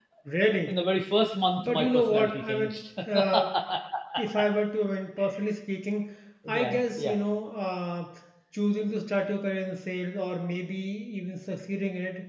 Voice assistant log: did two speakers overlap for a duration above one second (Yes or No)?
Yes